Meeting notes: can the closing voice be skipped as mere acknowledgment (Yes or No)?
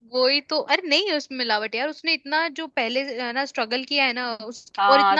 No